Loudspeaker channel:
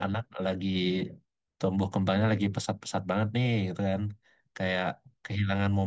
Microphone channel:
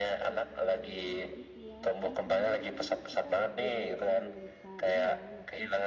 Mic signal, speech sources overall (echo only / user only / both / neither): both